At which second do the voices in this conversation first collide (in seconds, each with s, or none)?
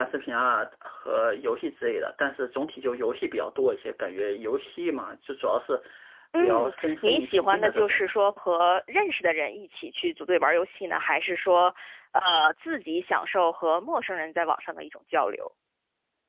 6.4 s